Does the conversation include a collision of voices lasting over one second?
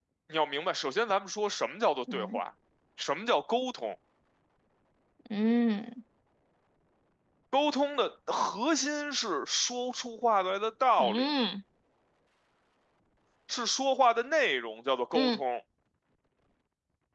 No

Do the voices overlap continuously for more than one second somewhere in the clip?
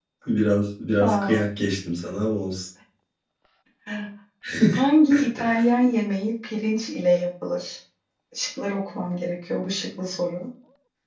No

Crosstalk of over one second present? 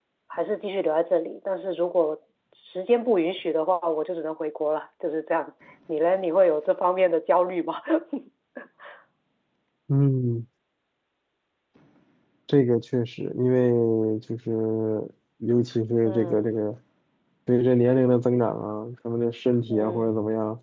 No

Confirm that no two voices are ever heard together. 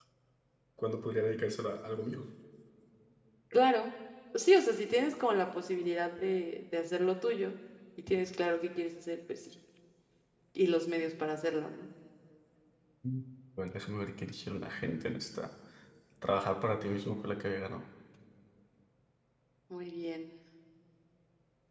Yes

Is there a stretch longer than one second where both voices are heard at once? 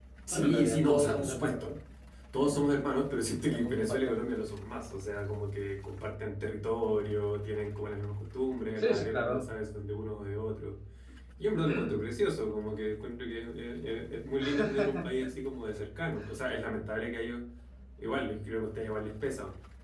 Yes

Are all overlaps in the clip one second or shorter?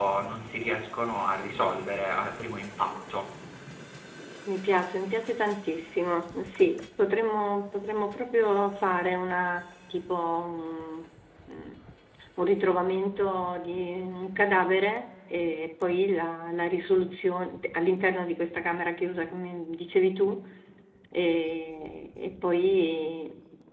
Yes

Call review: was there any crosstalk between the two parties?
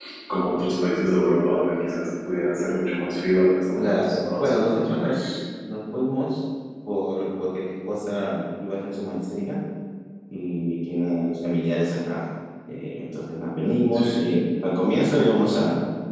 Yes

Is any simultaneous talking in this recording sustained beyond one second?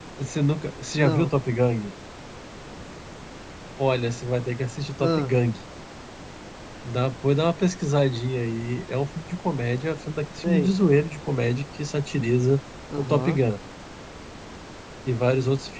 No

